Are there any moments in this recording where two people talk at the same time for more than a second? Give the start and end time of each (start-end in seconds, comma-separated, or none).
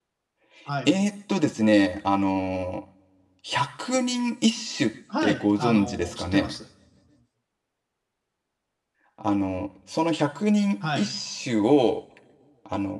5.2-6.5